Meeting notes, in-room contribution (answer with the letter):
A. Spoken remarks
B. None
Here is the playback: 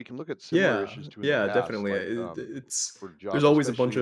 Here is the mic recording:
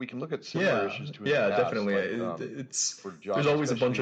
B